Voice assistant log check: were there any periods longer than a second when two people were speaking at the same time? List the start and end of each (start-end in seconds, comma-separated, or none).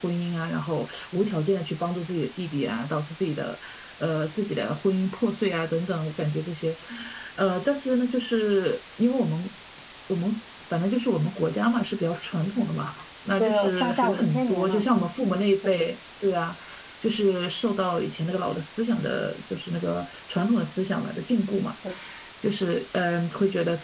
13.4-14.8